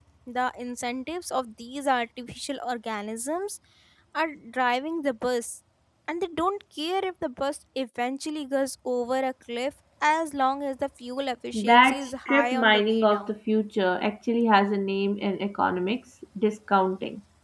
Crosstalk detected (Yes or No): Yes